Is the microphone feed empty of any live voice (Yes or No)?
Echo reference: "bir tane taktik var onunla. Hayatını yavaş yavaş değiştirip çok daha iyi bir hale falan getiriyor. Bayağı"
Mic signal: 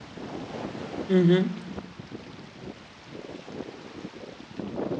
No